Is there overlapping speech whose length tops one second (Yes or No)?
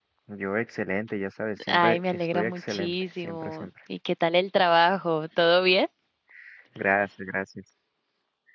Yes